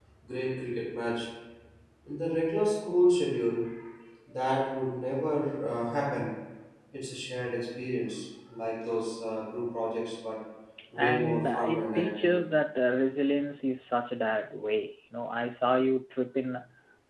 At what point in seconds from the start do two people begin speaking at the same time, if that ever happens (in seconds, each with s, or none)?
11.0 s